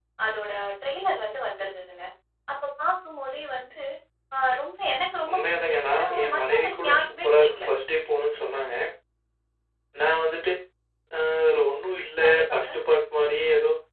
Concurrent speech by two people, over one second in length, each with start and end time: 5.3-7.7

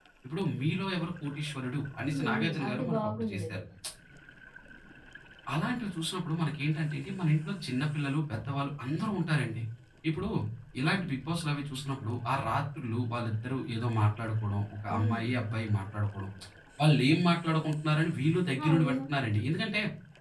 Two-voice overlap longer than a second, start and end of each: 2.1-3.6

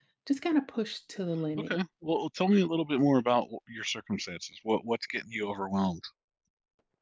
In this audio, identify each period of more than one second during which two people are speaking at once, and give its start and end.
none

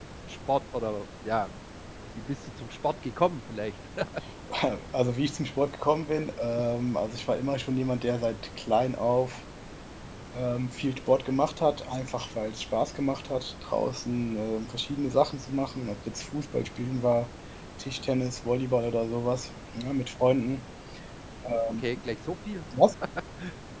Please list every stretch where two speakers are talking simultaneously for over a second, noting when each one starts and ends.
none

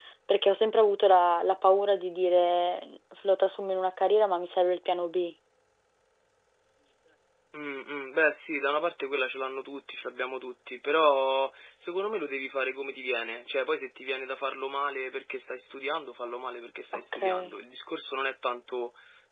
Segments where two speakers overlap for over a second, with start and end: none

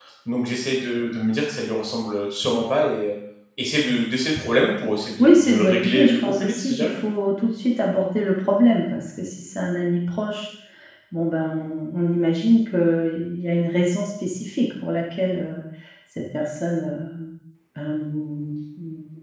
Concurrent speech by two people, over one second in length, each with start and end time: 5.2-6.9

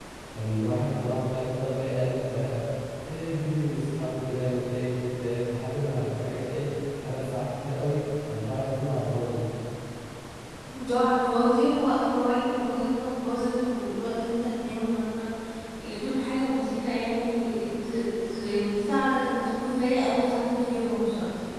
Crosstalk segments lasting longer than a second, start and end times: none

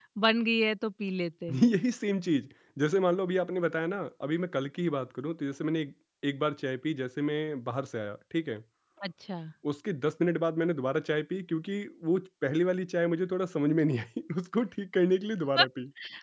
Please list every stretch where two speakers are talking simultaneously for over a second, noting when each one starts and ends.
none

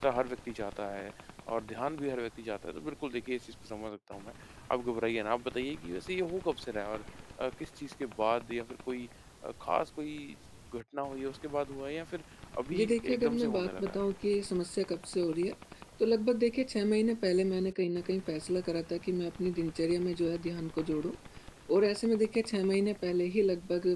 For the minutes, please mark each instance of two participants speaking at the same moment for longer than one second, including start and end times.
12.7-14.0

